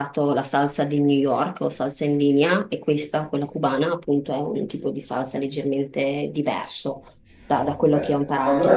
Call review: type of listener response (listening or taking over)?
taking over